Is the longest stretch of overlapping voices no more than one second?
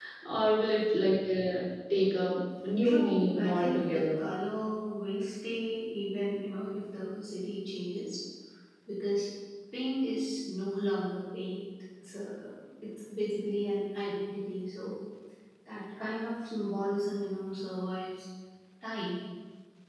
No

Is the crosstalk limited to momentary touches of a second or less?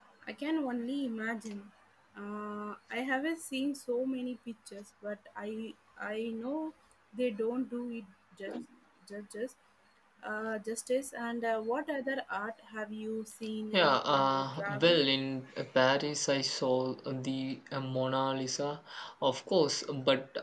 No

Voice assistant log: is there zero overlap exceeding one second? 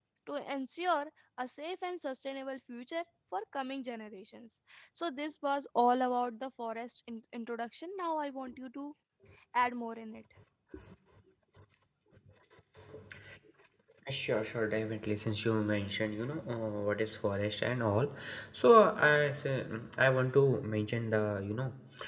Yes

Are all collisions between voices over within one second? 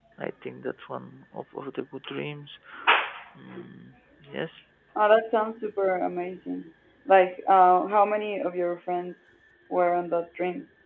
Yes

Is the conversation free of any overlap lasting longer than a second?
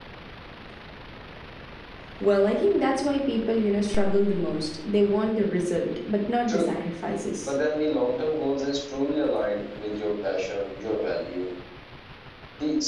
Yes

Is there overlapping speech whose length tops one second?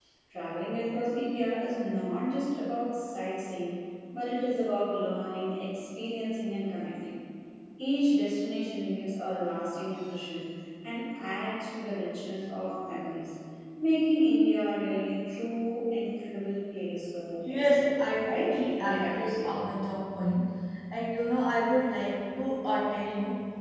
Yes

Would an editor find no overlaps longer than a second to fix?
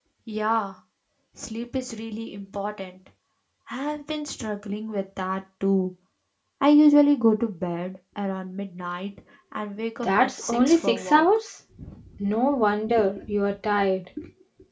No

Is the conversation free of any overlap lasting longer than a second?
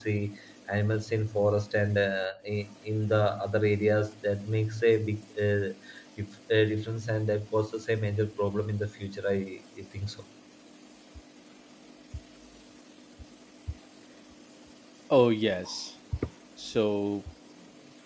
Yes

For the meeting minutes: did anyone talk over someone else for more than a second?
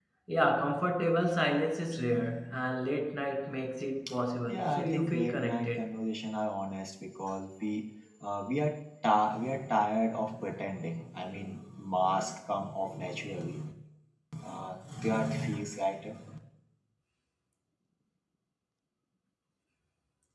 Yes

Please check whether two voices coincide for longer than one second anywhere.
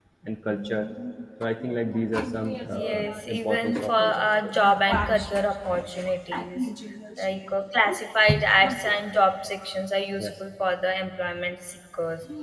Yes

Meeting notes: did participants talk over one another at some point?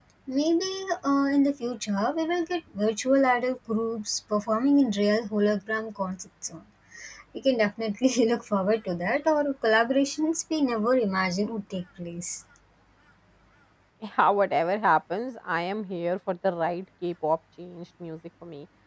No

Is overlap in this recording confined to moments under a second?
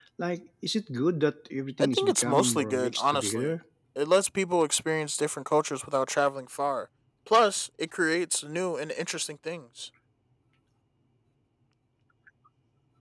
No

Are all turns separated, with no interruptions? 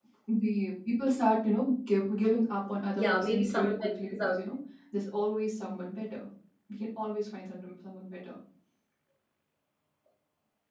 No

